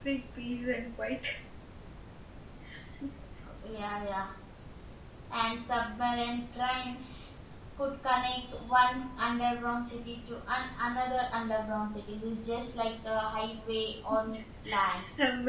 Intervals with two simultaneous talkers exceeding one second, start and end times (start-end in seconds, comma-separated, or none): none